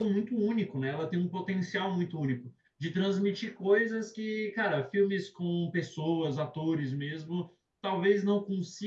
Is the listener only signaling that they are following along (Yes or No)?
Yes